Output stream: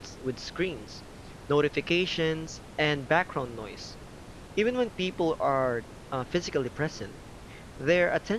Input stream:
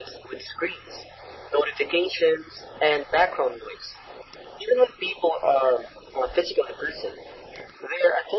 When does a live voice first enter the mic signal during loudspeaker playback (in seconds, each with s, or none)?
none